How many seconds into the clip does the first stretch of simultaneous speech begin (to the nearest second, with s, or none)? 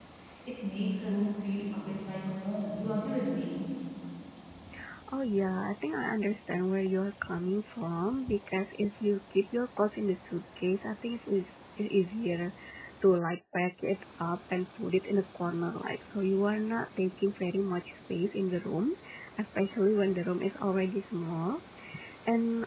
none